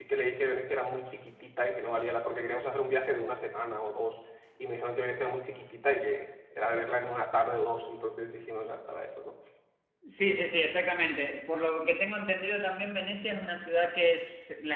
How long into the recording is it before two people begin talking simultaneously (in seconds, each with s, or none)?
none